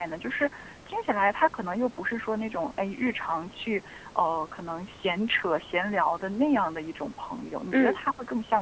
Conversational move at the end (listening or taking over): listening